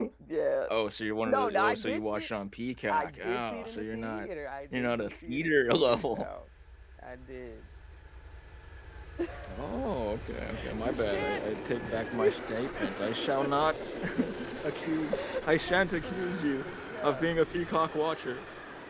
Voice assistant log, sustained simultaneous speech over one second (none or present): present